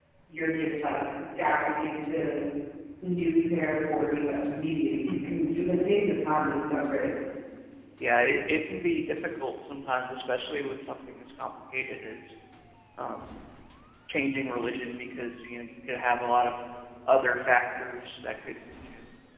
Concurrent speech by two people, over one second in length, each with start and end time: none

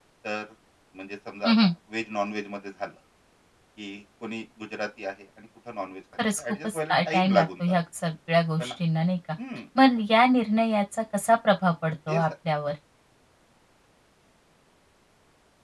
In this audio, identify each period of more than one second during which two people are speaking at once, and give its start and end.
6.4-7.6

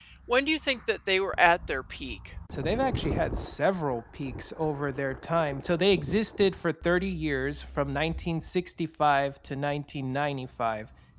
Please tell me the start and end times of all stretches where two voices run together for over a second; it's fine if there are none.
none

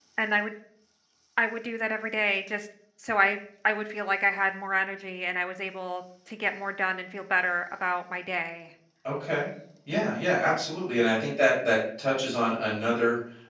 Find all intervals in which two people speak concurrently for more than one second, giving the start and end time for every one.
none

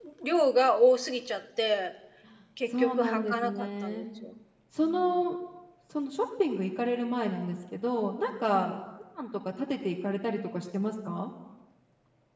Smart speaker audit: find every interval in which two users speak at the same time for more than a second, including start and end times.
2.7-4.0

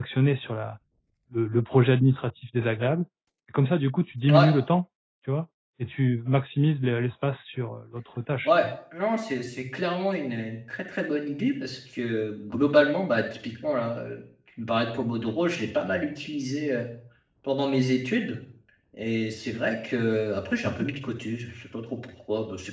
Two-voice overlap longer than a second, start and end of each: none

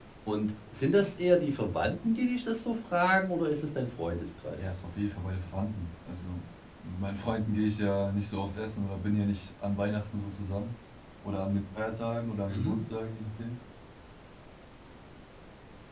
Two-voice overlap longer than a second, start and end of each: none

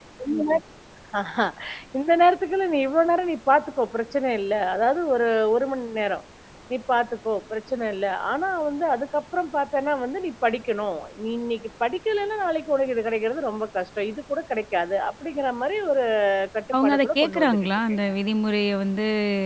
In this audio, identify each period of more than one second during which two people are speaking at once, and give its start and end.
16.7-18.0

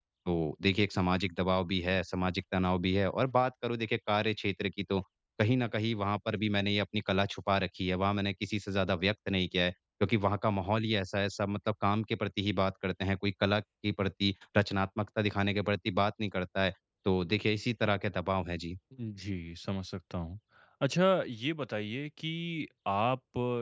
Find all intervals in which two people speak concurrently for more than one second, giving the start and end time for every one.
none

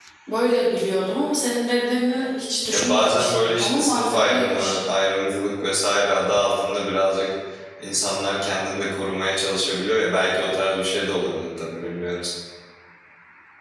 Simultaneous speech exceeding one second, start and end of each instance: 2.7-4.8

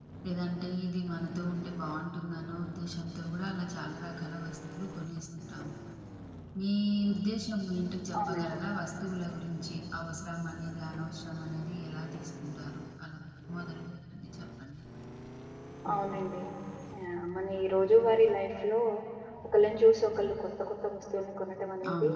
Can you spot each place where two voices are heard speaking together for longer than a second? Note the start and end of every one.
none

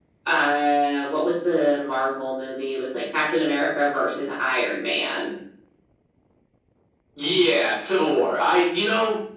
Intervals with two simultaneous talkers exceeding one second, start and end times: none

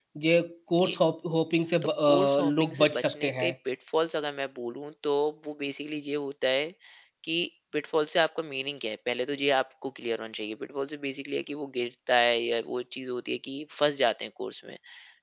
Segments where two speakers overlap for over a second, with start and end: 2.1-3.5

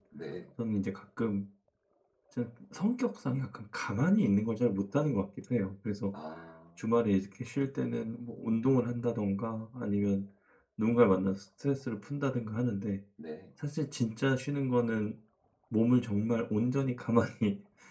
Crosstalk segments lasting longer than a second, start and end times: none

